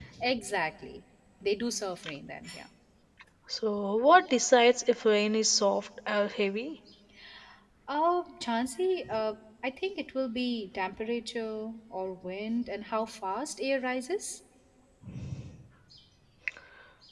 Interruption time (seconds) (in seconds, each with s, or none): none